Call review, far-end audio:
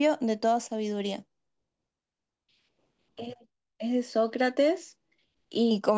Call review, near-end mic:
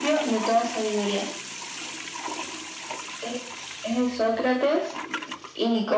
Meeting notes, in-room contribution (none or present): none